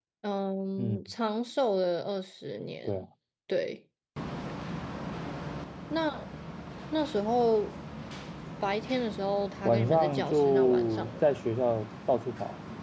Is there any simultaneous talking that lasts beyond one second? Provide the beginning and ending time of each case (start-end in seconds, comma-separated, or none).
9.6-11.2